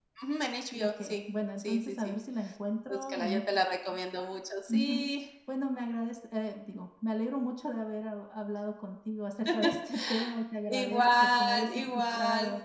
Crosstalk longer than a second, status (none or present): present